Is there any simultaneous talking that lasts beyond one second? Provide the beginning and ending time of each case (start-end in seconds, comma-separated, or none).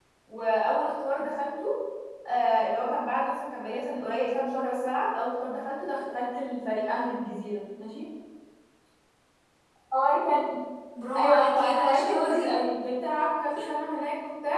11.2-12.5